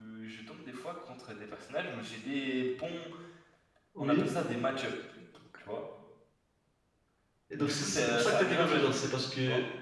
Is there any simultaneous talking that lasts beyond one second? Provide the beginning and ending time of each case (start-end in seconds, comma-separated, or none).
7.6-9.0